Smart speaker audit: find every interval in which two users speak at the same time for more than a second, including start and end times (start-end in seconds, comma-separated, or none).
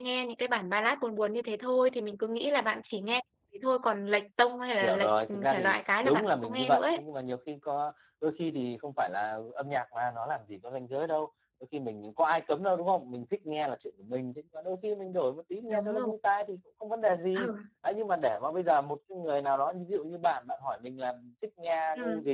4.8-7.0